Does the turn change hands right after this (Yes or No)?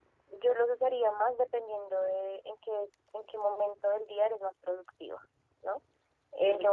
No